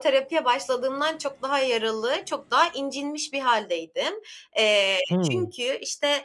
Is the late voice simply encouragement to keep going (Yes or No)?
Yes